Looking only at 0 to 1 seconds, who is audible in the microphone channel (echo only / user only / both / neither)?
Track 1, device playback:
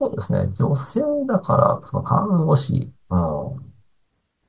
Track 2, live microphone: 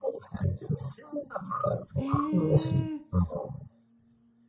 echo only